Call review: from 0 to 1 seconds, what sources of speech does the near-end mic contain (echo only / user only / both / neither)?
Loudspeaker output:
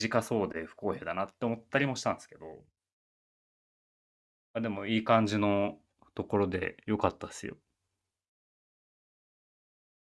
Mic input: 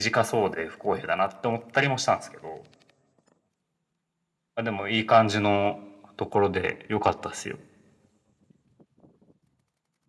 echo only